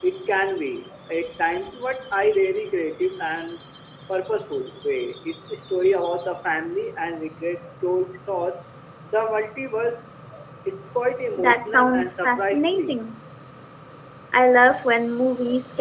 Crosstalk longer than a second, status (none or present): present